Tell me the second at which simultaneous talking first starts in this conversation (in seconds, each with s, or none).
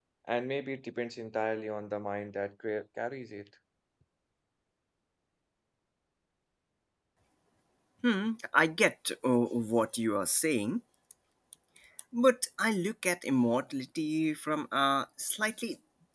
none